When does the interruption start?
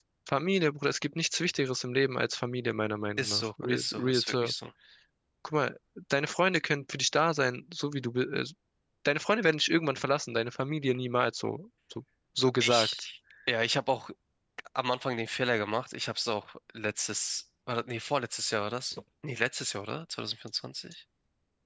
3 s

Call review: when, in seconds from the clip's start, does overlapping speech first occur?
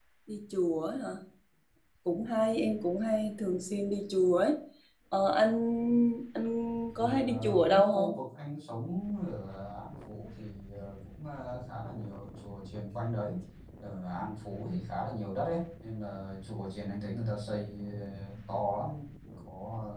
7 s

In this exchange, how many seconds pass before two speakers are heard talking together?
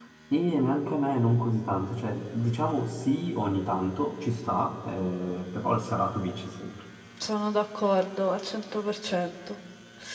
none

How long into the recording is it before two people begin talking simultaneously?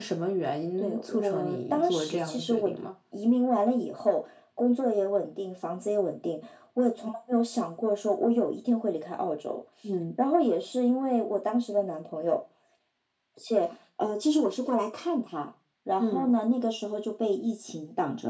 1 s

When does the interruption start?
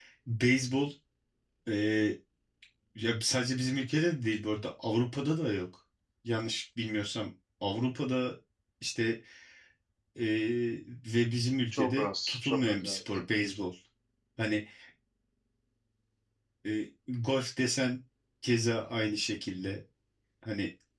12 s

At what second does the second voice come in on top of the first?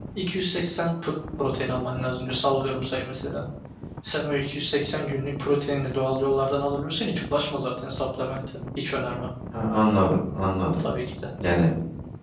none

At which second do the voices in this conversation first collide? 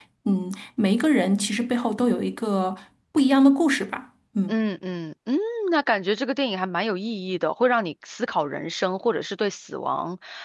none

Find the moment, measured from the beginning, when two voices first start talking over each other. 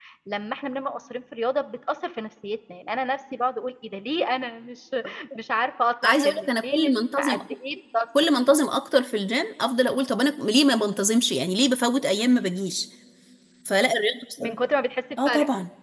6 s

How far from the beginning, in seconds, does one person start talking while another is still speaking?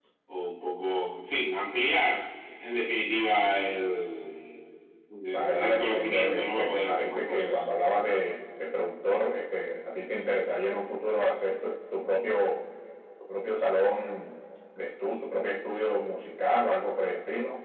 5 s

